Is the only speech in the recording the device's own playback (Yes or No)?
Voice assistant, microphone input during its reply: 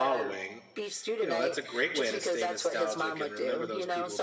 No